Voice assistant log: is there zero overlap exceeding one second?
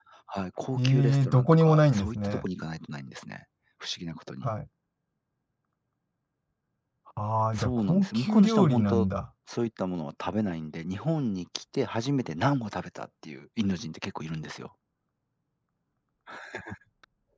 No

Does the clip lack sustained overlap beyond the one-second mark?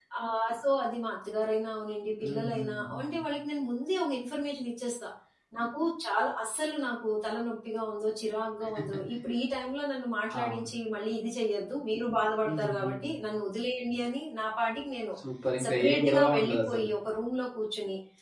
No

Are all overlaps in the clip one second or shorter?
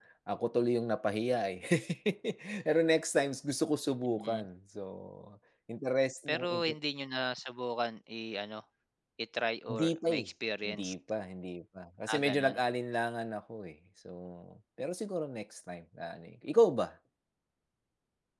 Yes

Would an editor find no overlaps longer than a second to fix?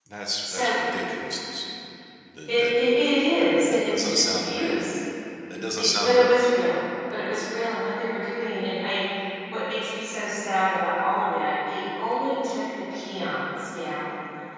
No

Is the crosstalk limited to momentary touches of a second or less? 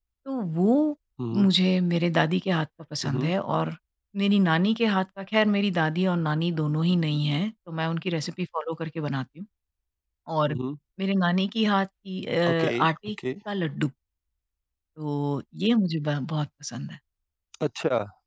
Yes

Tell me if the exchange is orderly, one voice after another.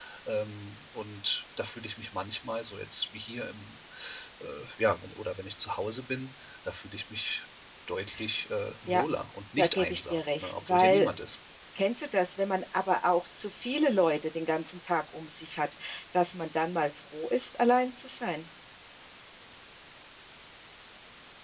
No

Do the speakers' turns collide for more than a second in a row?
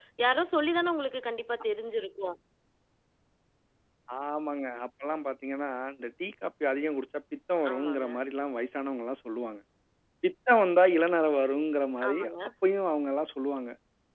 No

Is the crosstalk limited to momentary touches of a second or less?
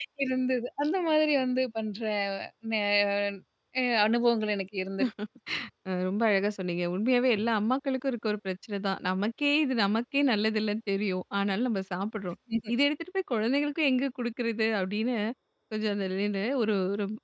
Yes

